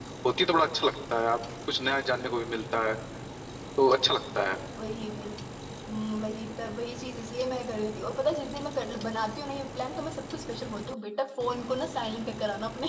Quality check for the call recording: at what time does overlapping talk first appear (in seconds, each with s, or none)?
none